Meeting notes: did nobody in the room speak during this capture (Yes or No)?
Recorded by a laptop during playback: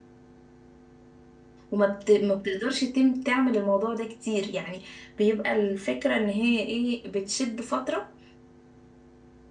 No